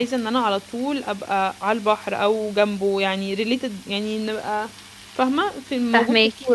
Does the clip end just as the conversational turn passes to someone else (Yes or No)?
Yes